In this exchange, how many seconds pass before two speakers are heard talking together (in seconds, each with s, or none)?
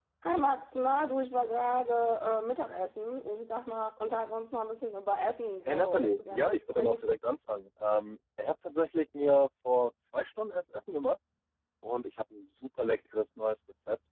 5.7 s